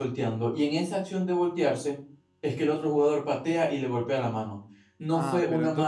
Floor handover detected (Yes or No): Yes